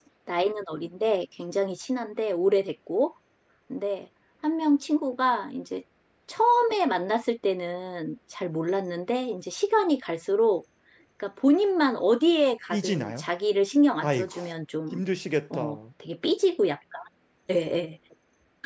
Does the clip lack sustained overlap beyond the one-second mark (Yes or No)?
Yes